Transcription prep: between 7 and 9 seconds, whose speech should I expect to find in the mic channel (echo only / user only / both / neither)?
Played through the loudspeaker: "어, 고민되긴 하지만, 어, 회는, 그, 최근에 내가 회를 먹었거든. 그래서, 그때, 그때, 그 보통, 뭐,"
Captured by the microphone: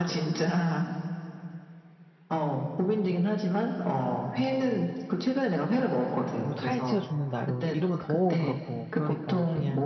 both